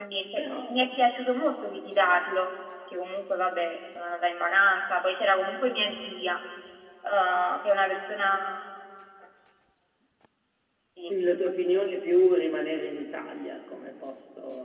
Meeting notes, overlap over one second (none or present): none